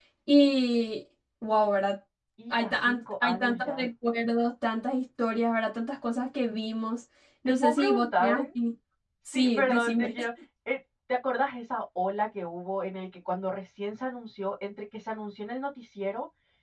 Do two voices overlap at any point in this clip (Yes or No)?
Yes